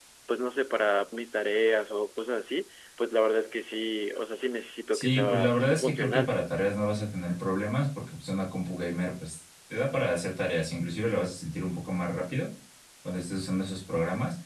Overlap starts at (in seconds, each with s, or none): 4.9 s